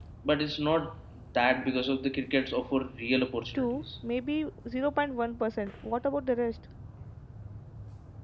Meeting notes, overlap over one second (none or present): none